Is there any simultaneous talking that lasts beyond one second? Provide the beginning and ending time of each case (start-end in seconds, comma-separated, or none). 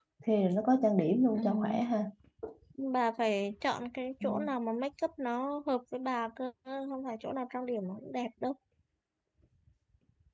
none